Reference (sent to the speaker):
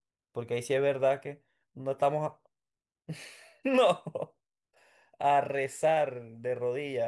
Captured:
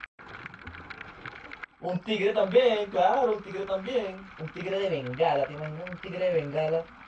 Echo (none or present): none